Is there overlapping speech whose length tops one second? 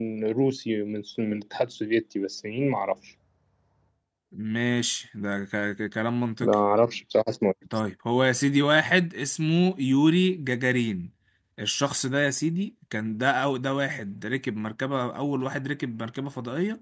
No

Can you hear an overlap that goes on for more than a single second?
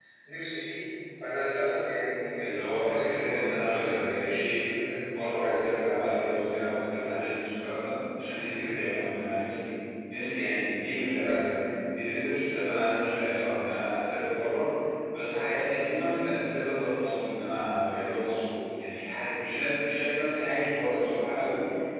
Yes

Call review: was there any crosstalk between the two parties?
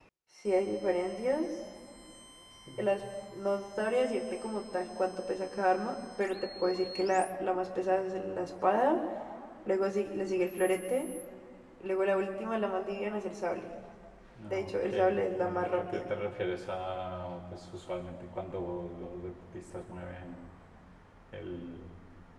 Yes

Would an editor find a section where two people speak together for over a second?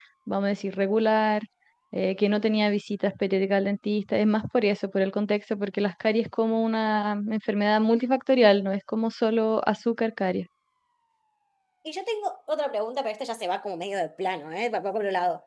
No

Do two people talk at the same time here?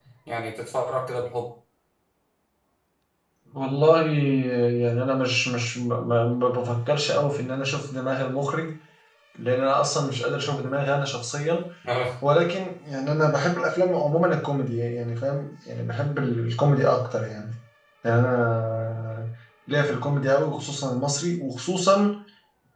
No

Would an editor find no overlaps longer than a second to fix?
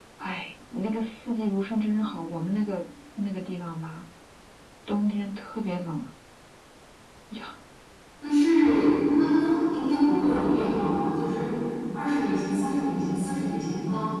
Yes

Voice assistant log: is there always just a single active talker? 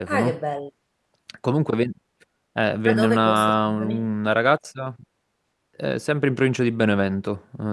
No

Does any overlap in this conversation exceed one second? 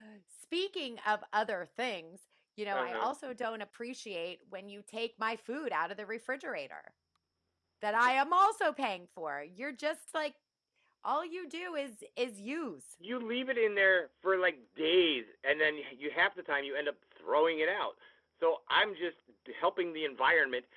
No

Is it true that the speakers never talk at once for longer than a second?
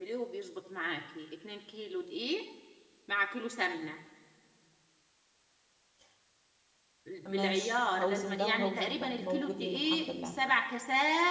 No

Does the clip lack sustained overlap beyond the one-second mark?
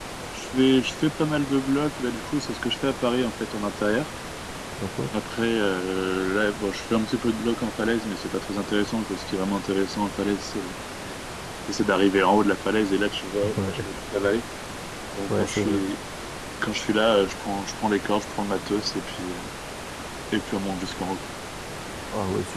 Yes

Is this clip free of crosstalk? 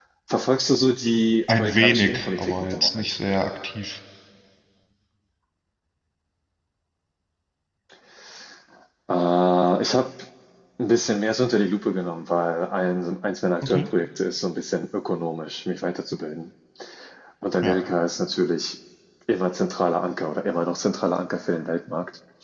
No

